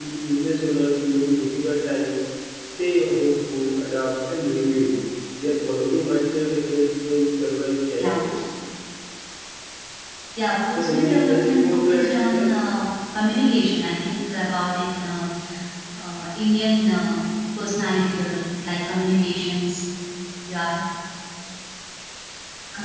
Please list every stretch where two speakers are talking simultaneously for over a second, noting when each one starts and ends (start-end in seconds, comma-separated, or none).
10.8-12.5